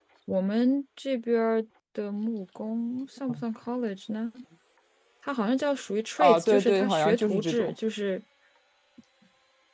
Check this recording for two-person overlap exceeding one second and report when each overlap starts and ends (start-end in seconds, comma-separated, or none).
6.2-7.7